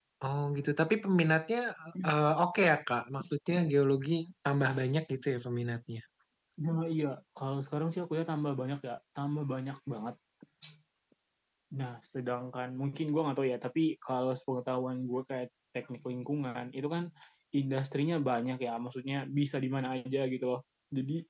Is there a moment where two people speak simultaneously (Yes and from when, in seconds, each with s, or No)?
No